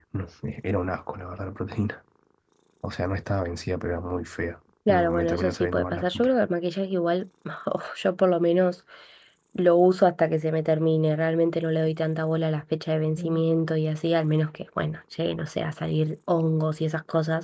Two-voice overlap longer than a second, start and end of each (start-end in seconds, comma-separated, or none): 4.9-6.3